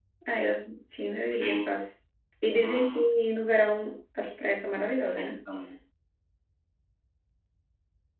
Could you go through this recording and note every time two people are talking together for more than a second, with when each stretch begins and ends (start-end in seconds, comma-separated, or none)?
none